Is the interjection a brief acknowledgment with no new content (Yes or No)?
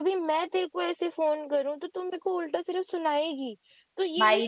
Yes